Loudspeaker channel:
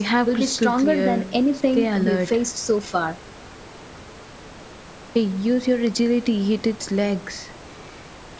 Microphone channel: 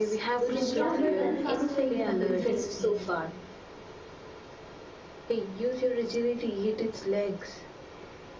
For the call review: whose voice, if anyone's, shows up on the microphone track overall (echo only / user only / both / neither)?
both